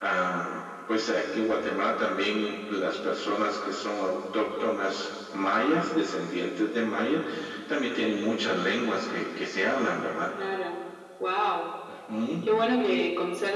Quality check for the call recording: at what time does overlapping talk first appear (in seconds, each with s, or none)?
none